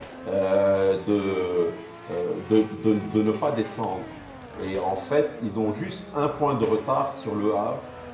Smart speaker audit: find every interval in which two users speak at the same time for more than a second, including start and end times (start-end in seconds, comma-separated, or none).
none